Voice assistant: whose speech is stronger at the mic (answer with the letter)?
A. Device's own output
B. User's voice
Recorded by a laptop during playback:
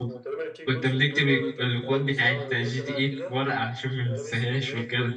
B